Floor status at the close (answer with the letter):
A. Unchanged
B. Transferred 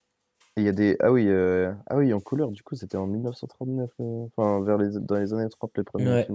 A